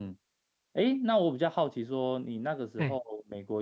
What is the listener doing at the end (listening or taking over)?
listening